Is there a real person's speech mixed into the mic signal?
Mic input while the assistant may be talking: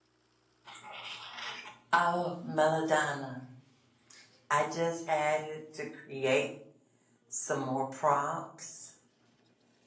Yes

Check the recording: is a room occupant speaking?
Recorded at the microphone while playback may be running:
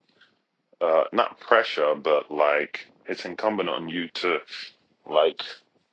Yes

